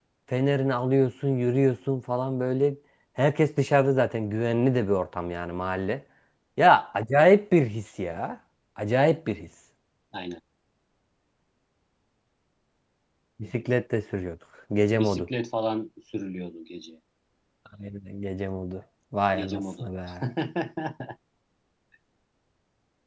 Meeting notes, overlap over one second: none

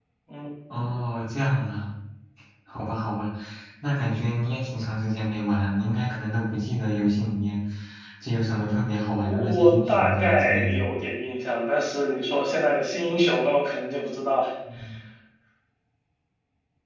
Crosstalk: present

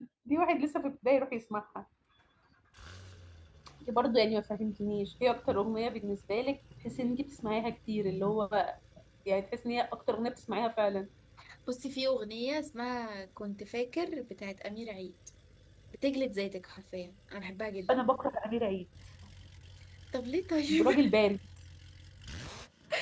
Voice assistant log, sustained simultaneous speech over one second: none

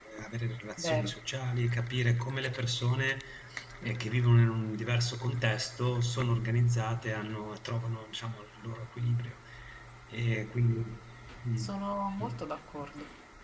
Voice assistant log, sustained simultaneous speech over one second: none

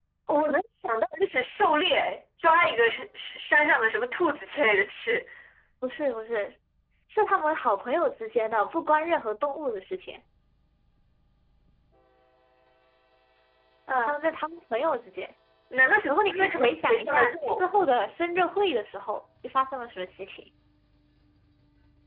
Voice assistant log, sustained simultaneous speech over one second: present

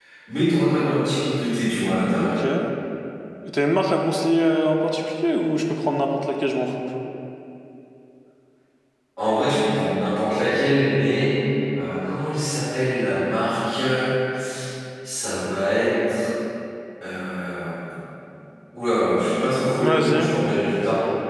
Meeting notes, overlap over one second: none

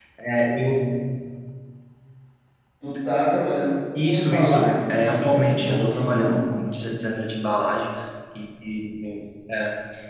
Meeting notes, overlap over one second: present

